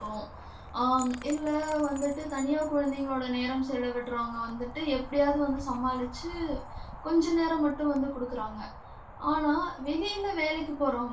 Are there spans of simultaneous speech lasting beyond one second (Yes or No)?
No